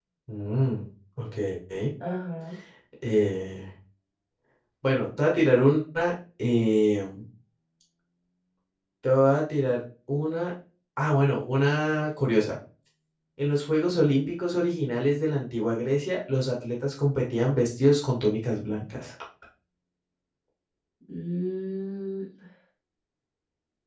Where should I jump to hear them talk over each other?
none

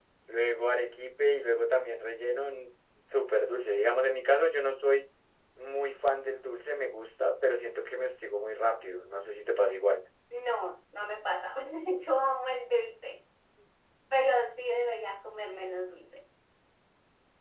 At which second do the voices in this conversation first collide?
none

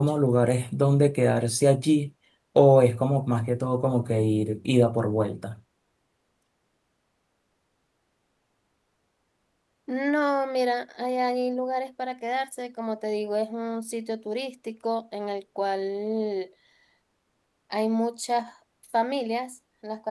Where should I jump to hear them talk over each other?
none

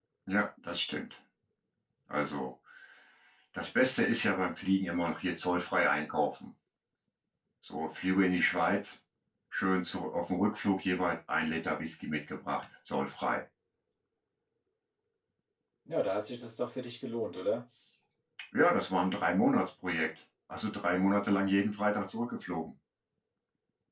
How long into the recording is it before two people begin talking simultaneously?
none

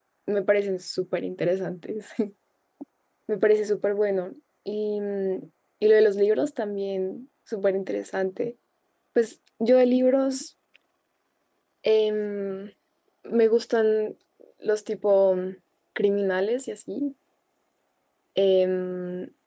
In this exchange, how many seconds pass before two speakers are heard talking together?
none

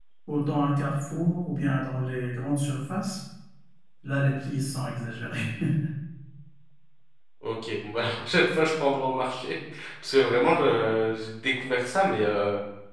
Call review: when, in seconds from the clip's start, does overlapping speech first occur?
none

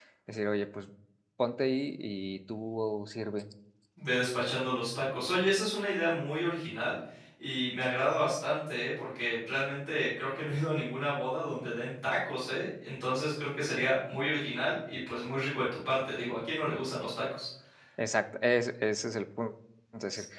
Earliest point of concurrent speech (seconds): none

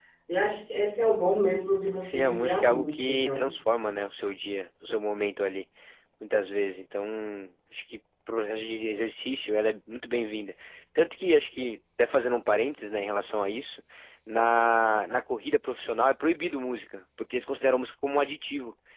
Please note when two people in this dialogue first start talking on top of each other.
2.0 s

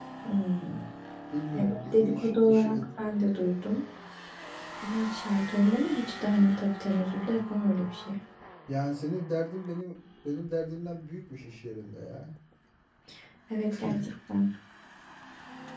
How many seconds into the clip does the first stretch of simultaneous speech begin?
1.5 s

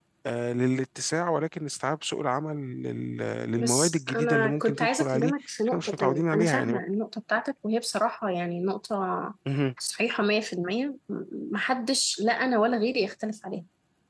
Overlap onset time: 3.6 s

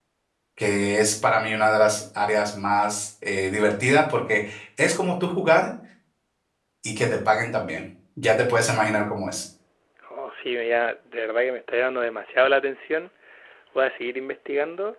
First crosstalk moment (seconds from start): none

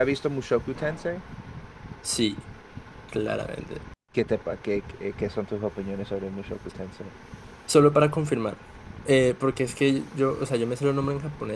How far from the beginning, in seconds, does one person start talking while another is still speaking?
none

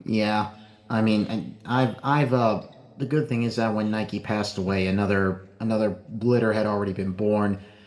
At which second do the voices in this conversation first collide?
none

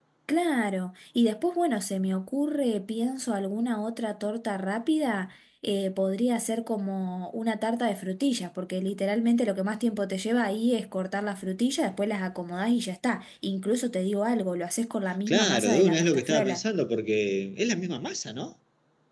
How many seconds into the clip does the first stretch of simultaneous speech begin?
15.3 s

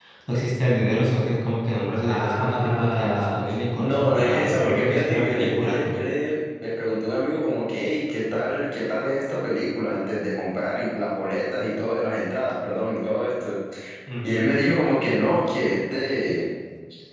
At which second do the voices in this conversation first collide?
2.1 s

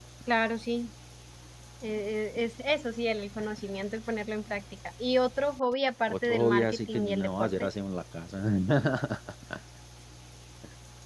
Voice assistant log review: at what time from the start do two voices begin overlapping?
6.1 s

